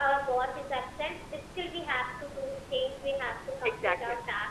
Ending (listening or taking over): listening